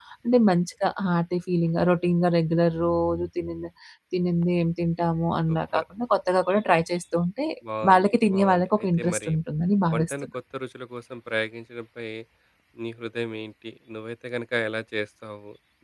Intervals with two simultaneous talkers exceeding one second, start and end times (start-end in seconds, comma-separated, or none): 7.9-9.3